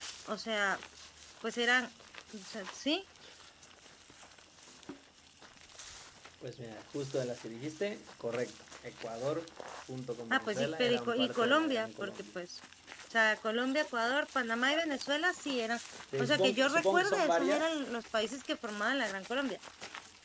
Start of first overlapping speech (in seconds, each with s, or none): 10.3 s